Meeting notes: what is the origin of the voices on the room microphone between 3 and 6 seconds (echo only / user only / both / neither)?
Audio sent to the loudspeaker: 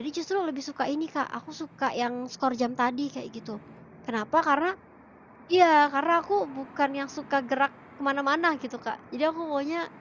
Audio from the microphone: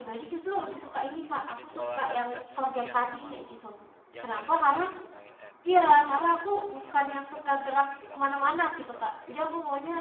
both